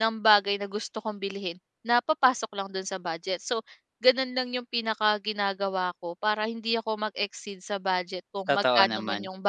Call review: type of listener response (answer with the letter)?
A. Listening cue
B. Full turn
A